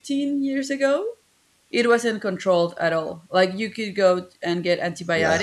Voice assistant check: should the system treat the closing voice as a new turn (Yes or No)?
No